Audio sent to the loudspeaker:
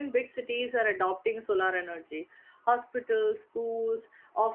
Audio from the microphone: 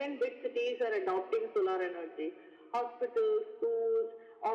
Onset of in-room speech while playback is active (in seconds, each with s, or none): none